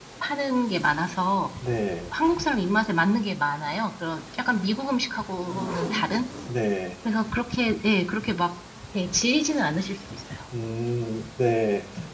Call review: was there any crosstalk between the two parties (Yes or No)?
No